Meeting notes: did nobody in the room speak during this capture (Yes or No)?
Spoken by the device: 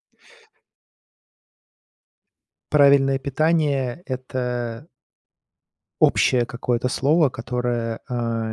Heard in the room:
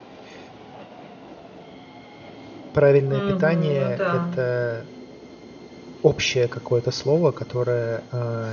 No